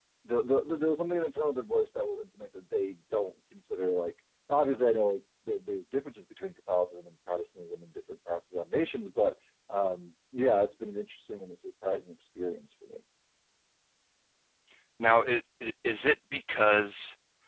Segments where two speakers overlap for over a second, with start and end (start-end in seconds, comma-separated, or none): none